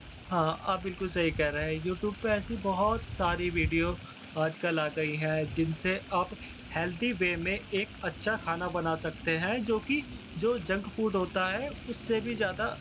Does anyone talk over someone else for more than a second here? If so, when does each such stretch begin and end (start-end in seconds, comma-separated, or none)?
none